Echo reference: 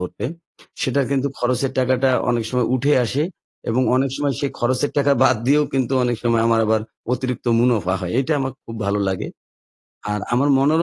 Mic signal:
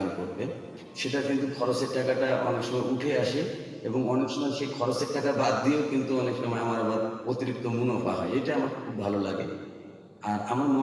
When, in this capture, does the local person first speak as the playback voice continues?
none

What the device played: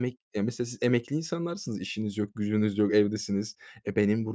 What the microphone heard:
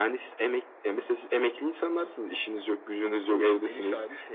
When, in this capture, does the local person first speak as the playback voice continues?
3.3 s

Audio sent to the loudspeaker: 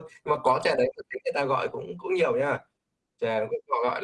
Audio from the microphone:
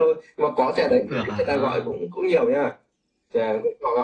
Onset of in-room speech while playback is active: 0.8 s

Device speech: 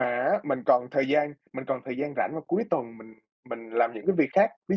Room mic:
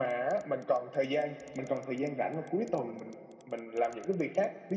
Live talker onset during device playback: none

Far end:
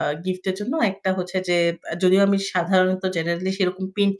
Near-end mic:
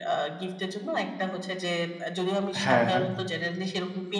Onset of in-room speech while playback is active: 2.6 s

